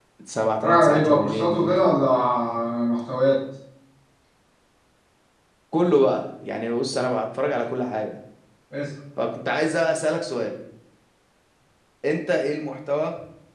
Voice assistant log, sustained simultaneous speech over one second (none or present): present